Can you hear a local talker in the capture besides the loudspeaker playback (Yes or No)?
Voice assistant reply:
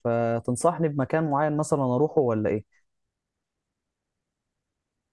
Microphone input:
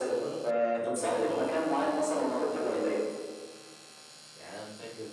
Yes